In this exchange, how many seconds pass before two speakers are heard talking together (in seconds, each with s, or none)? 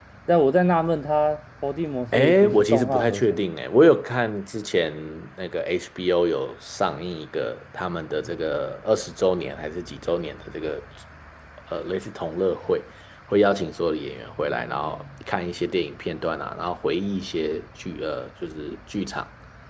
2.1 s